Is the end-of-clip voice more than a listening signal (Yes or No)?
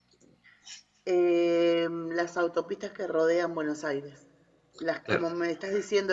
No